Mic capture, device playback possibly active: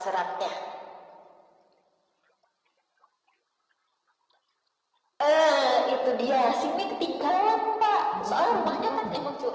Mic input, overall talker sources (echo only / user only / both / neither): both